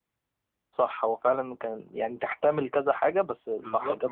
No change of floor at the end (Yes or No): No